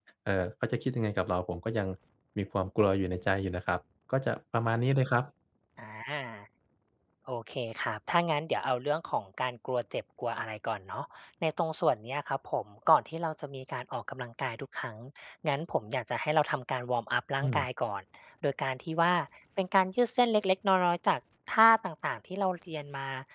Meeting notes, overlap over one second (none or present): none